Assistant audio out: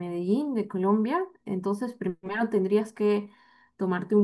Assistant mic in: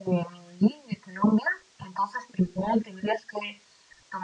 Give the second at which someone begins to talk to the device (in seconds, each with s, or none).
none